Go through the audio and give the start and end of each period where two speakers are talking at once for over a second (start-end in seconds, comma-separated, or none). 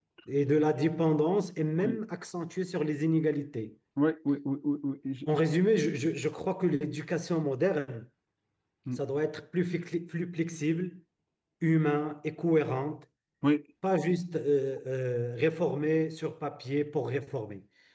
none